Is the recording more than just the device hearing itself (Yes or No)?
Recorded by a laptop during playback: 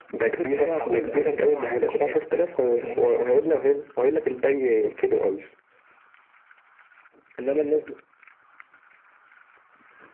No